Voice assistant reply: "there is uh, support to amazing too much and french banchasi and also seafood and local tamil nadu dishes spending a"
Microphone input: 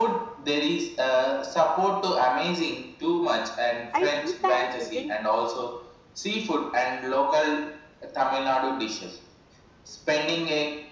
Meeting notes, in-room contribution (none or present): present